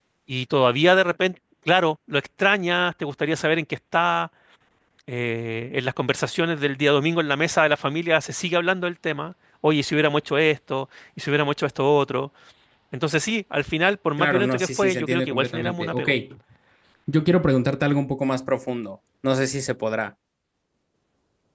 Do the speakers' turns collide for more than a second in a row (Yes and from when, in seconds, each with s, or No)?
Yes, from 14.2 s